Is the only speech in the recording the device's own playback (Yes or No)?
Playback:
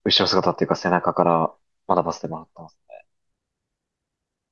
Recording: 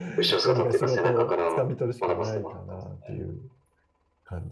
No